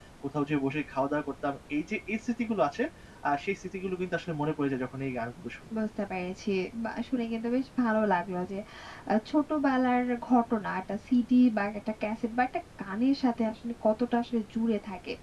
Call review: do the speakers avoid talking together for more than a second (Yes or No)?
Yes